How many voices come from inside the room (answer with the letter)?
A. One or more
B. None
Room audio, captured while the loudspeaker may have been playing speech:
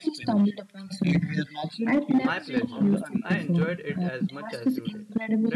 A